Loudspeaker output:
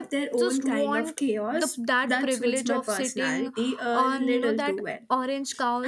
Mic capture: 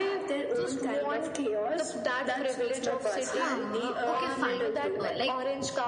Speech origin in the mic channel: both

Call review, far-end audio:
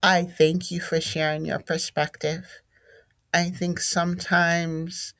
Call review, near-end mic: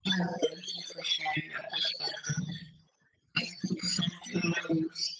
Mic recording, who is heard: echo only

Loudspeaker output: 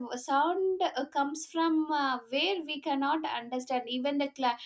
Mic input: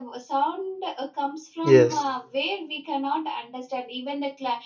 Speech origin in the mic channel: both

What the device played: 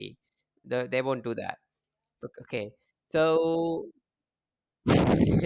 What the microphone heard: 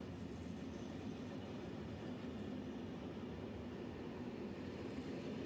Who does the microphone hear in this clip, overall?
neither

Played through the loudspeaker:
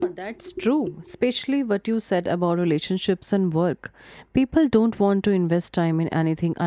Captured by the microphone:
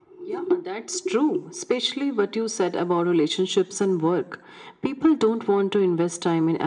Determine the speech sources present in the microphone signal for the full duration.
echo only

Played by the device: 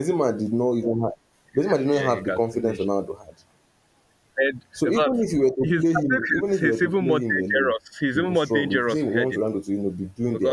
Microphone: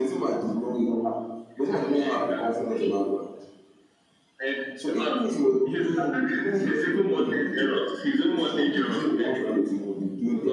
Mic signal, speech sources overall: echo only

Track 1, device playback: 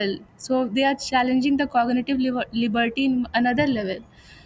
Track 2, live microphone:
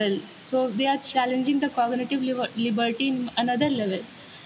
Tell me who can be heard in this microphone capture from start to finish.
echo only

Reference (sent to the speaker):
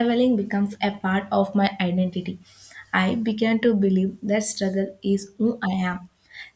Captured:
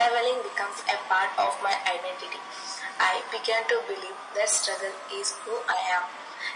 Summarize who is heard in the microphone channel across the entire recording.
echo only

